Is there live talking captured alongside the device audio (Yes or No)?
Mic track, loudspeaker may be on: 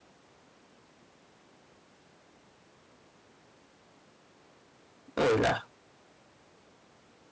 Yes